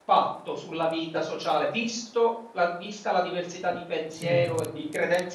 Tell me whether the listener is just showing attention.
Yes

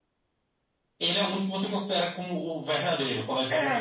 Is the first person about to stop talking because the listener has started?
Yes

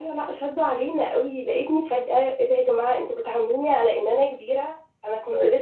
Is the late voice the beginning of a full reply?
No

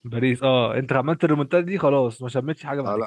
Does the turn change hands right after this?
Yes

